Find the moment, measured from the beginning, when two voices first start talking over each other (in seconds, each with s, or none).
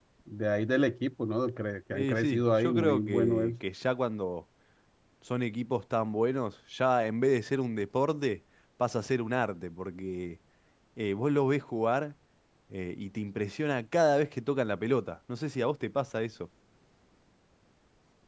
1.9 s